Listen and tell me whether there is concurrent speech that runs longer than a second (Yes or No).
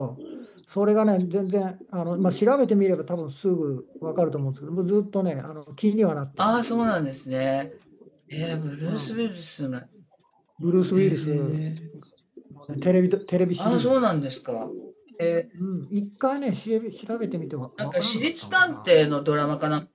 Yes